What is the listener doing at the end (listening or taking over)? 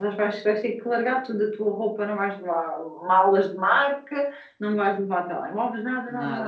listening